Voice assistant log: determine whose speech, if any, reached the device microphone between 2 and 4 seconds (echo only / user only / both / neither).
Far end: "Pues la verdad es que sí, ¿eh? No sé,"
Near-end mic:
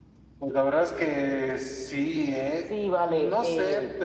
both